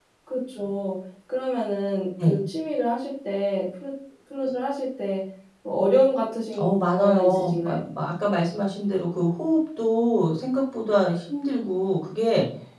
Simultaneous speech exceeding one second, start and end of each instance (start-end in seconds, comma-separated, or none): 6.6-7.8